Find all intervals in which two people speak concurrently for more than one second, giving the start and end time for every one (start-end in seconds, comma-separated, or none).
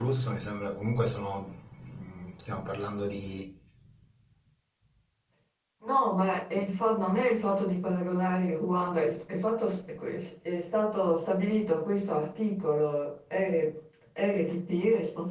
none